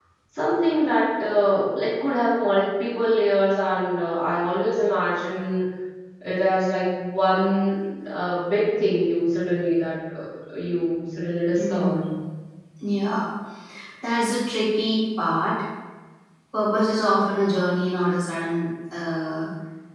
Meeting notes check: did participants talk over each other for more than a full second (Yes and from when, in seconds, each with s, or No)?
No